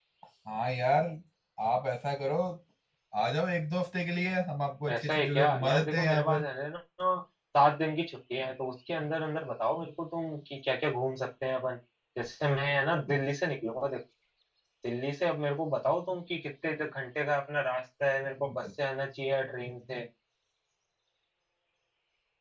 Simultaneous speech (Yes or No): Yes